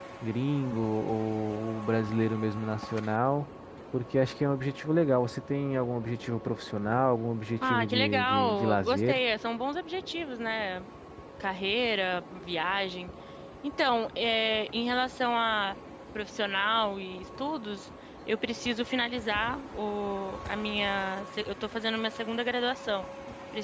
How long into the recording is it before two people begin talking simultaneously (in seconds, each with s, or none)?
7.6 s